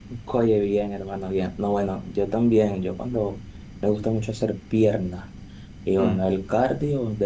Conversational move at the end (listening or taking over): listening